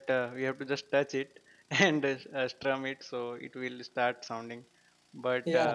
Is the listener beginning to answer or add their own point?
No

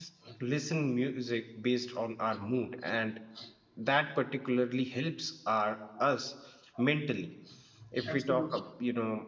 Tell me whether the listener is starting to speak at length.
No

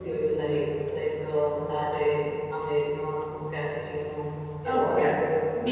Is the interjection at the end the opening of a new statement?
Yes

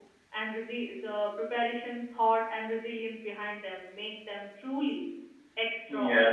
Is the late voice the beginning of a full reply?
Yes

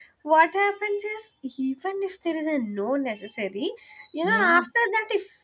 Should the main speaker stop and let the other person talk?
No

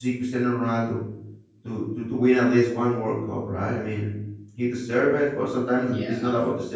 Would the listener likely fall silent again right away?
Yes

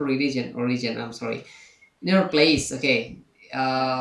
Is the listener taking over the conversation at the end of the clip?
No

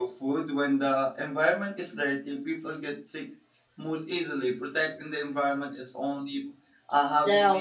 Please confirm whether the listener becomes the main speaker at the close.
No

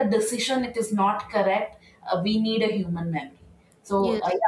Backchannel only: Yes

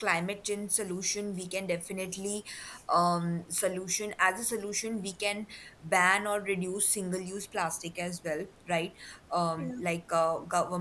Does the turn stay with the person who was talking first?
Yes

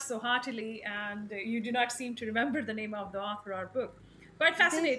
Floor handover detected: Yes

